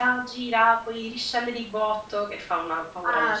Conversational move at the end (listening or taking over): taking over